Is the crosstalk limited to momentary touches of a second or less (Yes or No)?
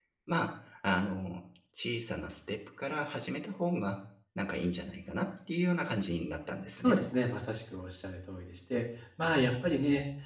Yes